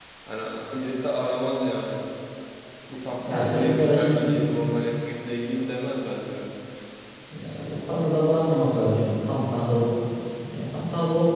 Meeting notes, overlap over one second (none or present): present